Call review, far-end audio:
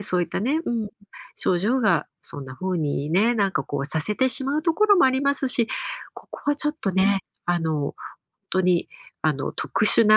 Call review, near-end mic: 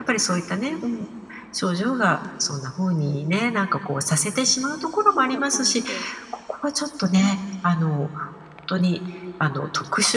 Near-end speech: present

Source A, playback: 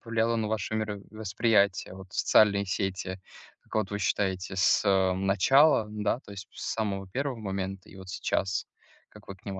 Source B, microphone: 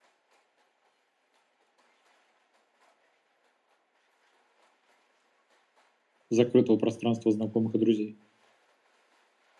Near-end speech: present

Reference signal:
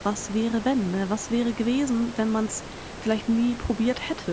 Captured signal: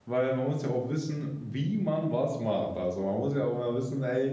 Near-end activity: present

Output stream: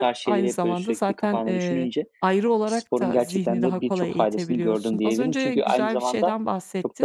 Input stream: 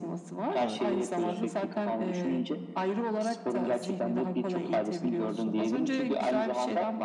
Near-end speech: present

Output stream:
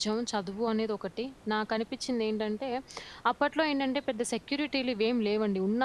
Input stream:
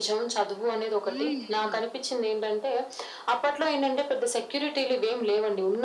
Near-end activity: present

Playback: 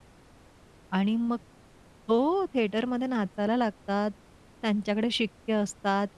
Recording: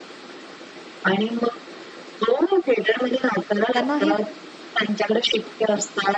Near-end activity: present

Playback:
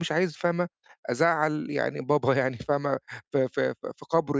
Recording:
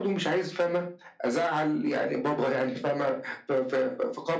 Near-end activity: none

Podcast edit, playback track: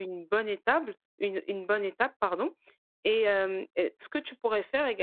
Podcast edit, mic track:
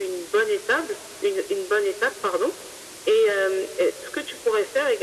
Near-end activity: none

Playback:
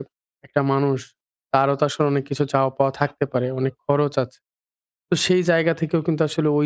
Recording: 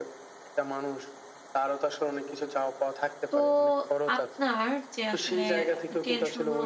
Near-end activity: present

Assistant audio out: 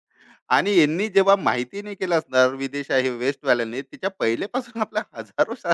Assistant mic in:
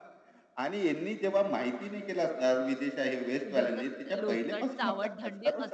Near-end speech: present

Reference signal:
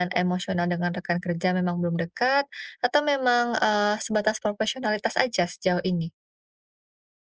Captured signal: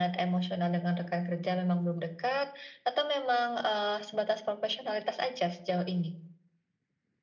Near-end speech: none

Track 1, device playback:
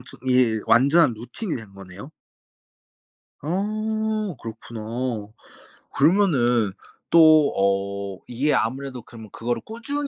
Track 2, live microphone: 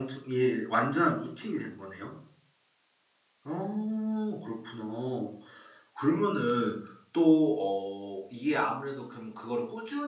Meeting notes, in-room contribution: none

